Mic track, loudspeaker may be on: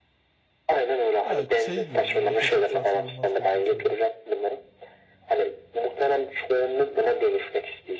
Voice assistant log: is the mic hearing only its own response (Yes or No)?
No